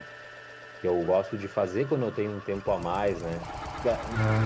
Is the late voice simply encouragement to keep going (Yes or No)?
Yes